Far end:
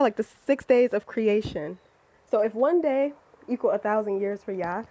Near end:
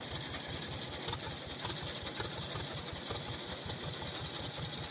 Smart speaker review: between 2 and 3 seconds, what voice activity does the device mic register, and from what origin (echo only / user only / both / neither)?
neither